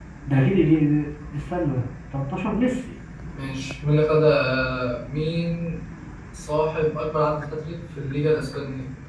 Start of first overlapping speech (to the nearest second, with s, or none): none